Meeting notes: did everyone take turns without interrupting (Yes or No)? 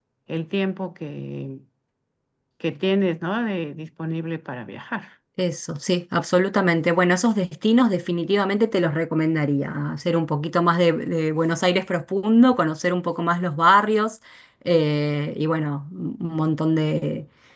Yes